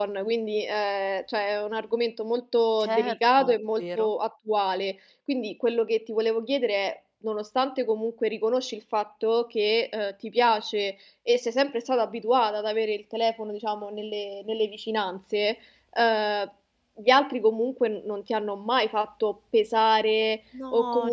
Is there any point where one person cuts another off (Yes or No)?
Yes